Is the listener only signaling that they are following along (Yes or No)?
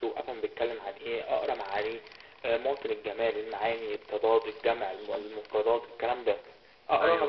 Yes